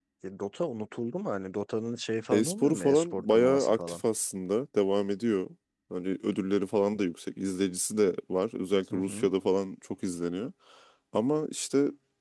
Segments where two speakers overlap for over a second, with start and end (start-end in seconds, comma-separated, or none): 2.3-4.0